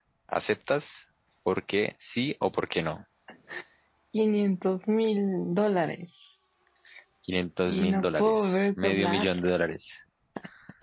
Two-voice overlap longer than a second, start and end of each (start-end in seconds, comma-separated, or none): 7.7-9.3